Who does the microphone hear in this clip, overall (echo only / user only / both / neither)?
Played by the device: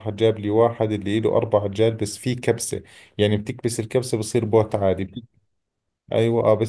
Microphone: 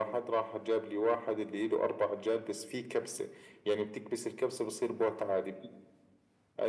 echo only